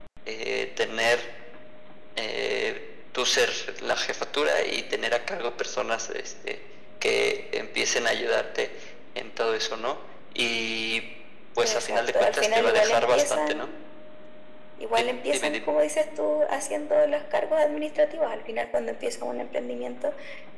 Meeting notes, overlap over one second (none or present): present